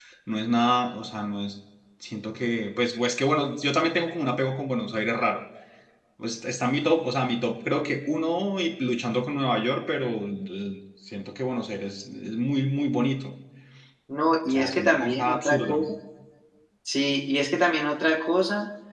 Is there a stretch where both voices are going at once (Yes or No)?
Yes